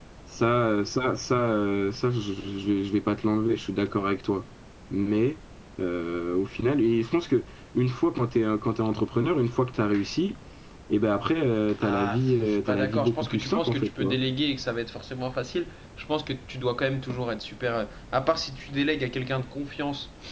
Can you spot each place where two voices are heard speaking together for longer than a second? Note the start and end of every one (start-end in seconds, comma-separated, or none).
11.8-14.2